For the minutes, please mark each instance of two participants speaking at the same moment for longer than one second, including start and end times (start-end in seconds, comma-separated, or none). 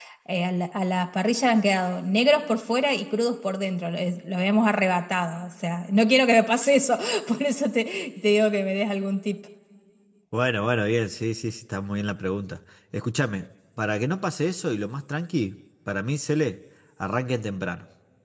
none